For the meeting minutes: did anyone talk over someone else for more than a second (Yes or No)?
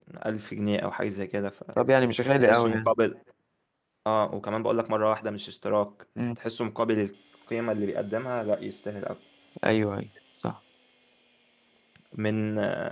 No